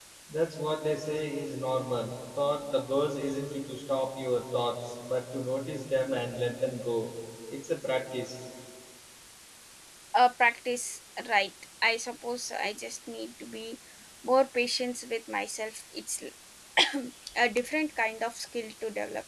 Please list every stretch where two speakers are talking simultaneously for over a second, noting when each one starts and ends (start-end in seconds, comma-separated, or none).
none